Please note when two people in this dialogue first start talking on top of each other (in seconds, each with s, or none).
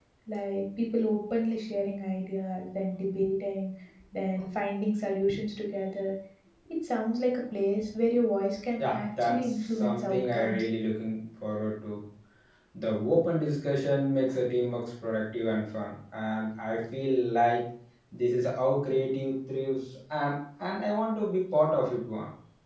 8.8 s